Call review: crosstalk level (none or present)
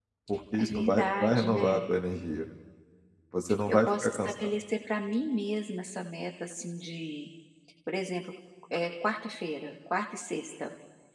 present